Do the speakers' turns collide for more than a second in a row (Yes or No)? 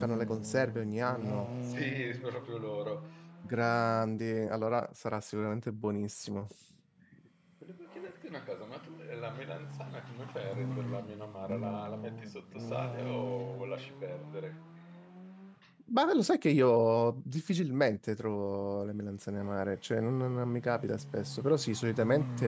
No